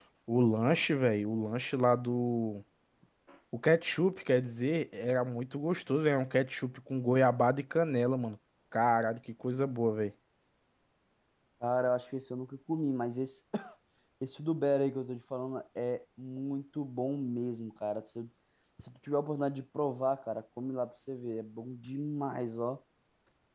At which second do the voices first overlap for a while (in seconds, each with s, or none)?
none